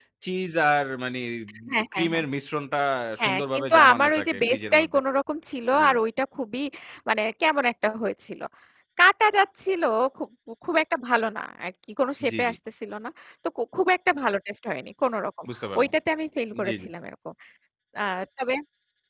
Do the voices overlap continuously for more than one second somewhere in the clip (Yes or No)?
Yes